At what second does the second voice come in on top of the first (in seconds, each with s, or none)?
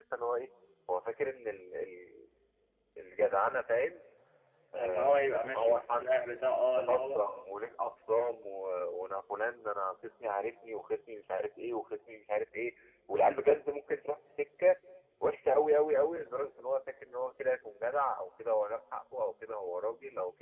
4.8 s